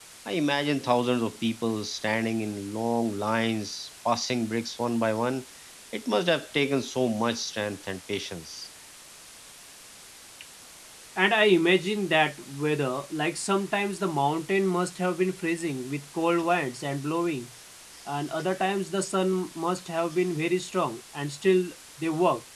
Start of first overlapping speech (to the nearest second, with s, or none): none